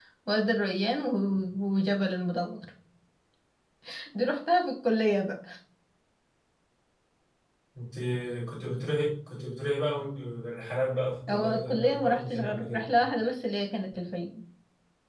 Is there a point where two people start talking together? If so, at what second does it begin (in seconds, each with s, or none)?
11.3 s